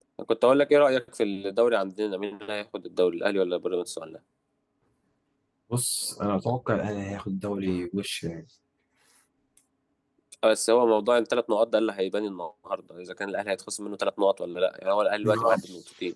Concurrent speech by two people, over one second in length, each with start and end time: none

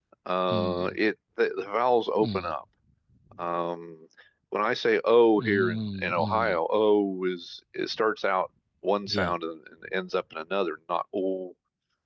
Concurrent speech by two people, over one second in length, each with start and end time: 5.4-6.6

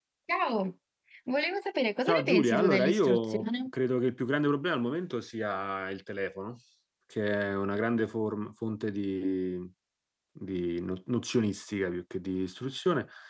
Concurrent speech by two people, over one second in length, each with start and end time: 2.1-3.7

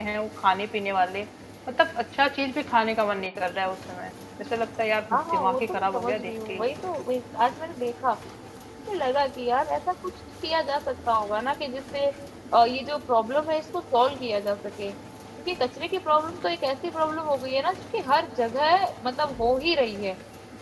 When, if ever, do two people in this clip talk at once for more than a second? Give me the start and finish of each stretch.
5.1-6.7

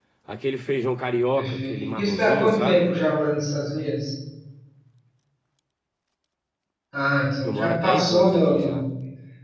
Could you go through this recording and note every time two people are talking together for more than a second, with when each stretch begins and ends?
1.4-2.9, 7.4-8.8

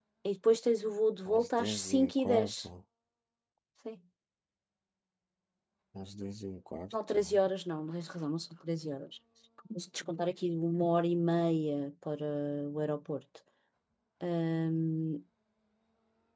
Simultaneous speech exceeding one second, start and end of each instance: 1.3-2.7

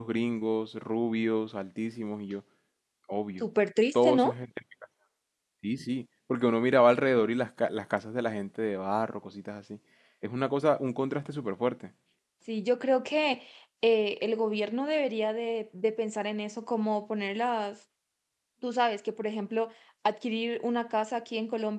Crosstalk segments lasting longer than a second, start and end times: none

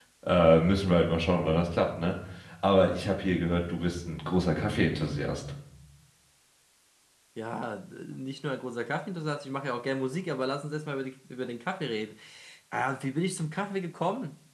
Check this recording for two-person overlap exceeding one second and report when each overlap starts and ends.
none

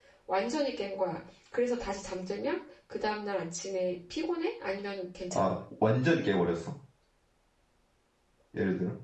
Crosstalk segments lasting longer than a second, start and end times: none

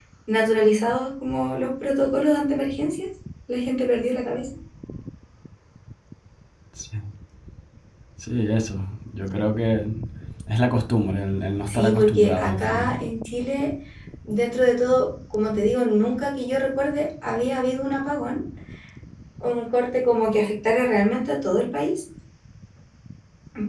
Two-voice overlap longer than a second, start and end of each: 11.7-13.0

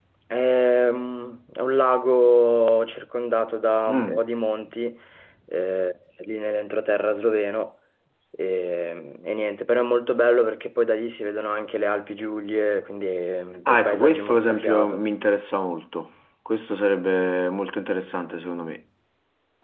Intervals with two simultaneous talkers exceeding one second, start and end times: 13.7-15.0

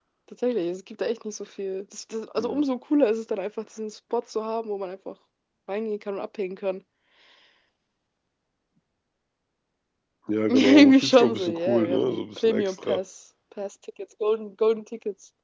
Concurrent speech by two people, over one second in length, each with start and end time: 10.5-13.0

